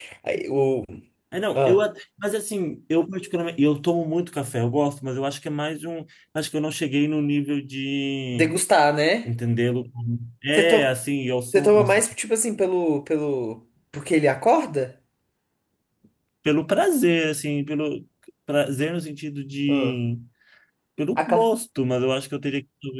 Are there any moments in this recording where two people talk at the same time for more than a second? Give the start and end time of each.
none

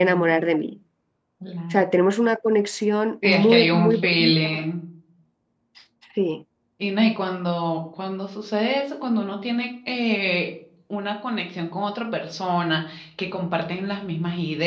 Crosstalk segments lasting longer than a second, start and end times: 3.2-4.6

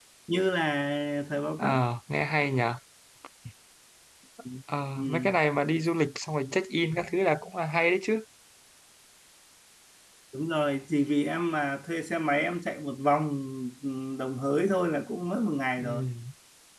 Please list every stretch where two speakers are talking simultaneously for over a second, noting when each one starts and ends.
none

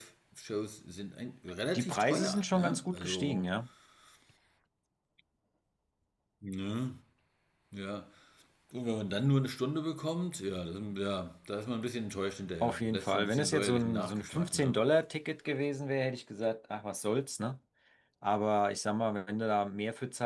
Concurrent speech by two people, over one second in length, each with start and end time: 1.8-3.5, 12.6-14.8

